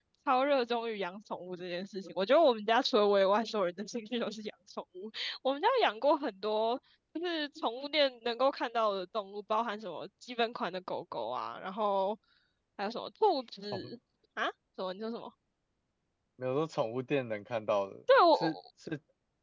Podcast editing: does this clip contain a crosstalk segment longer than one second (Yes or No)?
No